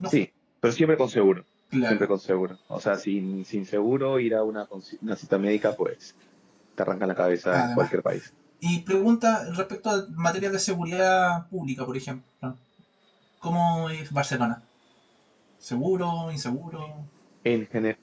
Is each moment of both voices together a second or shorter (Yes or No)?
Yes